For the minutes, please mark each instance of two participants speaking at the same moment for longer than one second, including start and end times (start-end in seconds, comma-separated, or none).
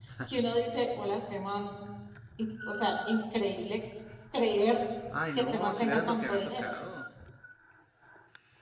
5.4-6.7